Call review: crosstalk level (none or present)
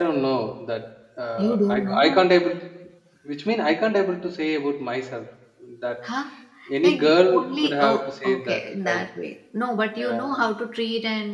present